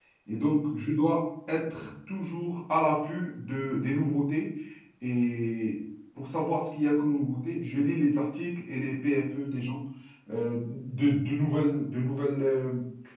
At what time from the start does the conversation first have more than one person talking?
none

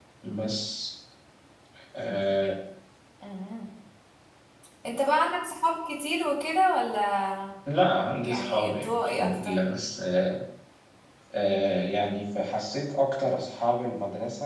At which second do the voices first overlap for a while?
8 s

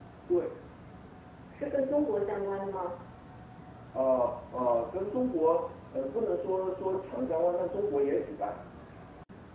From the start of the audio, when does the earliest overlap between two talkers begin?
none

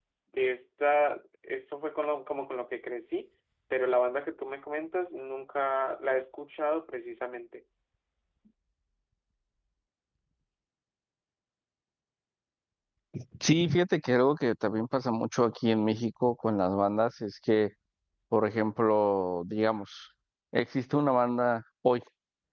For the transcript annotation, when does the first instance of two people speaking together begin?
none

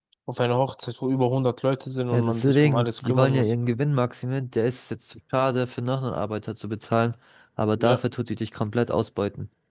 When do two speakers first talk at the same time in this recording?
2 s

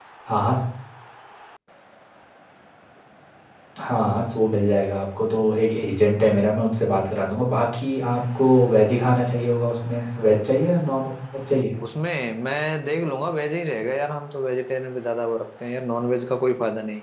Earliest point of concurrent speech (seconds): none

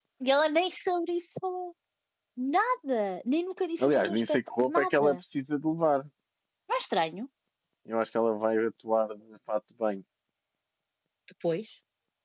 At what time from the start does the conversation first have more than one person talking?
4 s

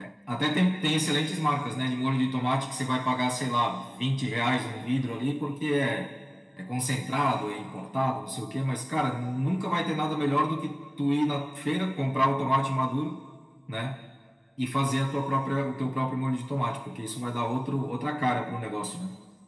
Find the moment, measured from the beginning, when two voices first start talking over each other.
none

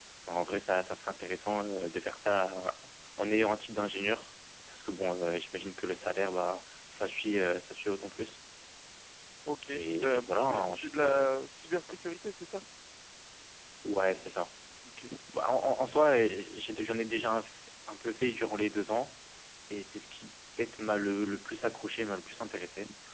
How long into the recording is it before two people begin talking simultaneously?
10 s

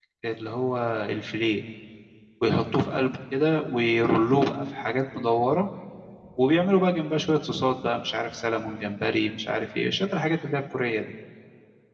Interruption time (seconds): none

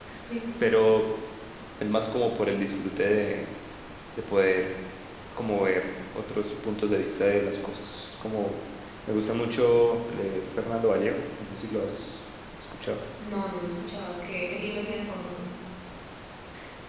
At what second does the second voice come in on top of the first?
none

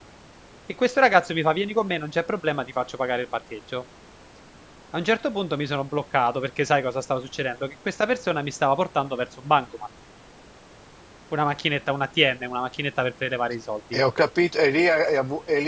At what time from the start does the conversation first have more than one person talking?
none

